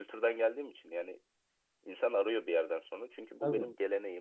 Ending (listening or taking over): listening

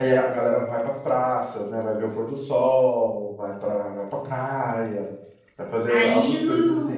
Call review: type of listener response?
taking over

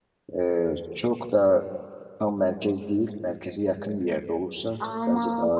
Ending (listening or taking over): taking over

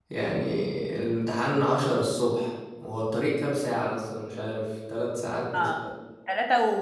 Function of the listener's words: taking over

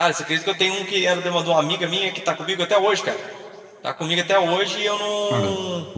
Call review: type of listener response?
taking over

